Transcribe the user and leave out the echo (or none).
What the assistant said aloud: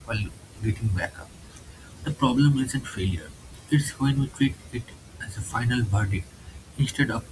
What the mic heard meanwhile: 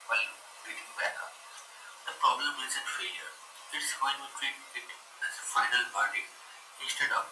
none